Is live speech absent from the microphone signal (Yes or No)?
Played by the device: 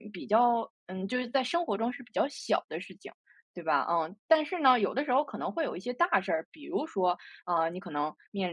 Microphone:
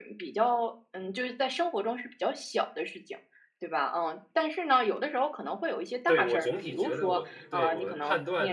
No